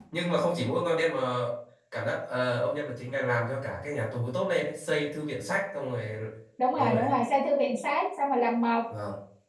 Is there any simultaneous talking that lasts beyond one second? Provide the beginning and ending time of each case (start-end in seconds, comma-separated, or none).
none